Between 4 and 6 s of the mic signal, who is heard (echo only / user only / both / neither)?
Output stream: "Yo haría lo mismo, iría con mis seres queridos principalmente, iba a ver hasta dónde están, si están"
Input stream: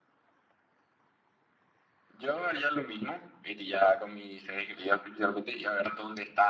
echo only